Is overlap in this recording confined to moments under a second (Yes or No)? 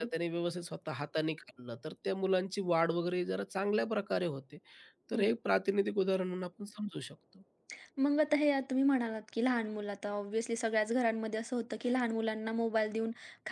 Yes